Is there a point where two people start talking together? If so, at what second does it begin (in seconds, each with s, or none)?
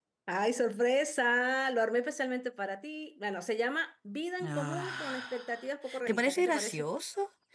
4.4 s